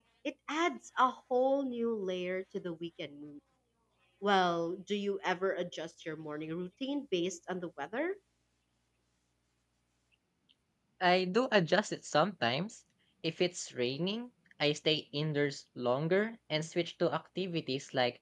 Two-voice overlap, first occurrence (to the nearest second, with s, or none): none